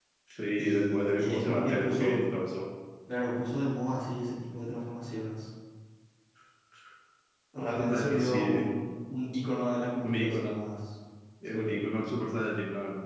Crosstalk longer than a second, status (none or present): present